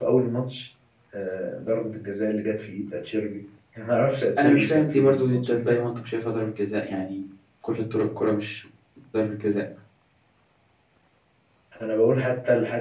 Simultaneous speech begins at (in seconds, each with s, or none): 4.4 s